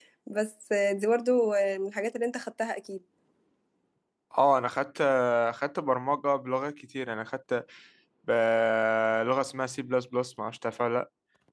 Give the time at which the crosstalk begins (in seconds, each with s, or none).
none